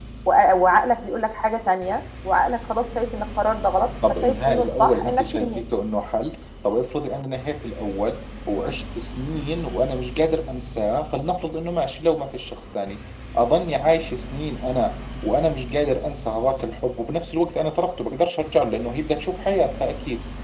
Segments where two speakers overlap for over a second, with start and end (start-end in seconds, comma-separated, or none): 4.1-5.6